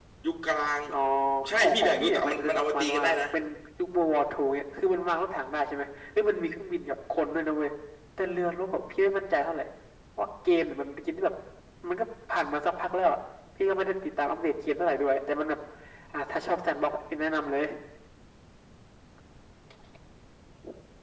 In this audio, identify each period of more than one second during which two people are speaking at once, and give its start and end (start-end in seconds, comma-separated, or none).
1.5-3.2